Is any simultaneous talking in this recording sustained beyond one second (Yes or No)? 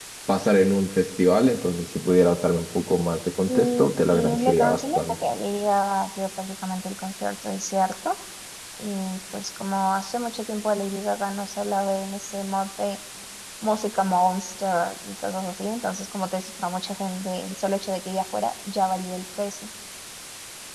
Yes